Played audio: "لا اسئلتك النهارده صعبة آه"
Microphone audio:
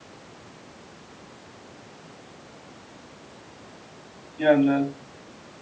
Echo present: No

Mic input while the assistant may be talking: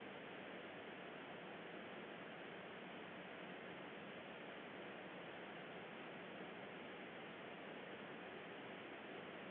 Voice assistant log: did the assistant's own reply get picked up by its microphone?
No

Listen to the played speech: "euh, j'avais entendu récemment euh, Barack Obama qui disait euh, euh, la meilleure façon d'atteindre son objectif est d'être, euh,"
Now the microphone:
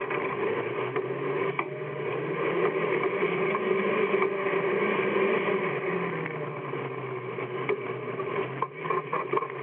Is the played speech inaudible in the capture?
Yes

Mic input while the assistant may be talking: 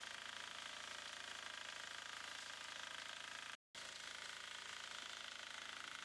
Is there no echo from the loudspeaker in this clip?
Yes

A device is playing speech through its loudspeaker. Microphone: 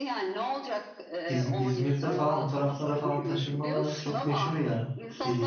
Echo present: Yes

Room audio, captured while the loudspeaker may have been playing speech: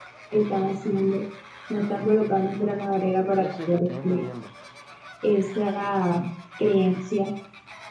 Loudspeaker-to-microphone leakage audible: Yes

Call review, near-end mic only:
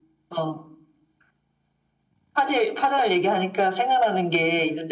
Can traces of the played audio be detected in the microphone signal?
Yes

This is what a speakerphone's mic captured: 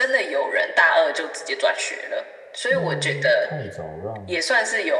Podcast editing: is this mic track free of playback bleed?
No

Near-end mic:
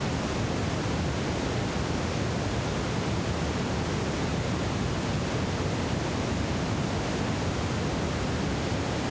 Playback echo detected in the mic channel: No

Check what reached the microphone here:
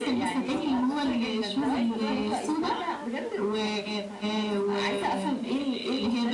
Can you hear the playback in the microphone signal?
Yes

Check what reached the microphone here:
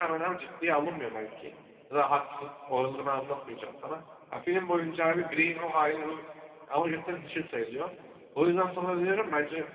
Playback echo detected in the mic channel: No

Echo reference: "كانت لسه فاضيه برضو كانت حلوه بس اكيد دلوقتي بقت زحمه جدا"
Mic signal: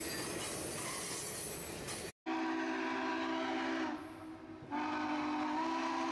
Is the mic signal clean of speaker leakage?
Yes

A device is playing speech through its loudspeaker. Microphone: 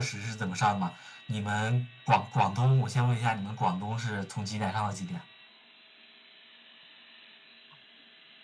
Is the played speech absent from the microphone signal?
No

